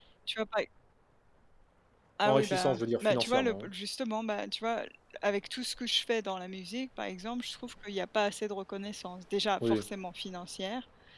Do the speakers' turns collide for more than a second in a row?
Yes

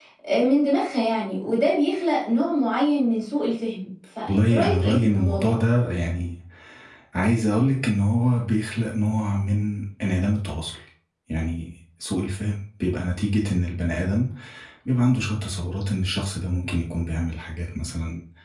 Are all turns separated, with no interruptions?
No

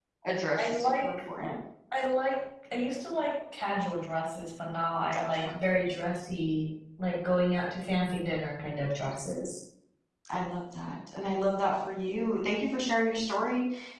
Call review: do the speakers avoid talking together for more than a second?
Yes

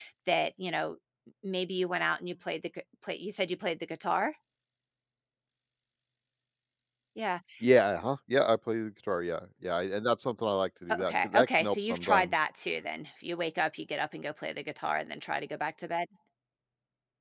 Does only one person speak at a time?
No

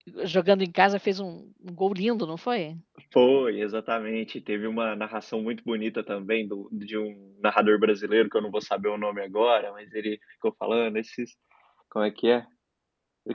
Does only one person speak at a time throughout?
Yes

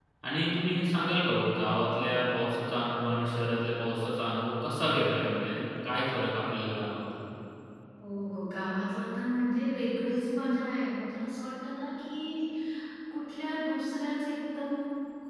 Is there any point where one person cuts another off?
No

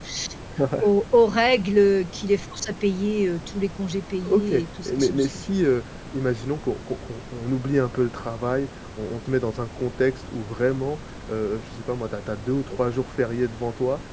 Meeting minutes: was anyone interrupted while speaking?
Yes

